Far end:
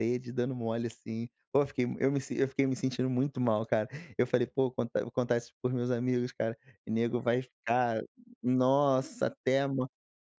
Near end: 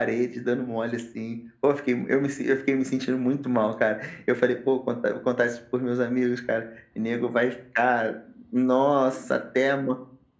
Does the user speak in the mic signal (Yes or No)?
No